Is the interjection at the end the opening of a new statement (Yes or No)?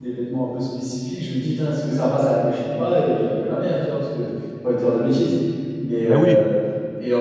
No